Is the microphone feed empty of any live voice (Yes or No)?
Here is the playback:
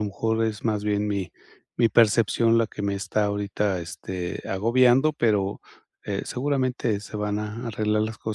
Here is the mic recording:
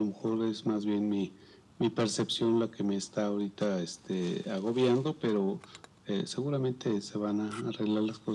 Yes